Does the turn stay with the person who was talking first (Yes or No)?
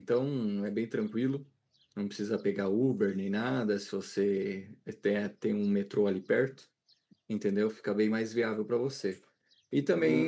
No